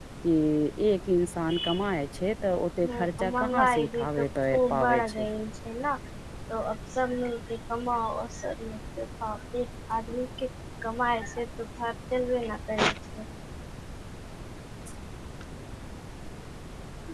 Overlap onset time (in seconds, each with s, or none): 2.8 s